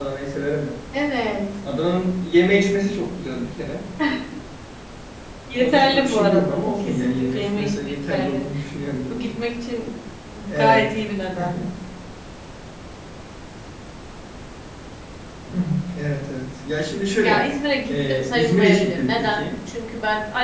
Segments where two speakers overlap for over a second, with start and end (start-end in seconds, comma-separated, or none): 5.6-8.5, 17.9-19.4